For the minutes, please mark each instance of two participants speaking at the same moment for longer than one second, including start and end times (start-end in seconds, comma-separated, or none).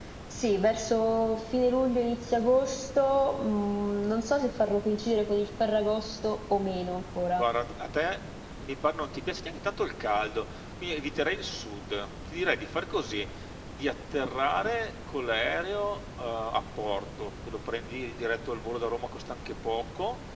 none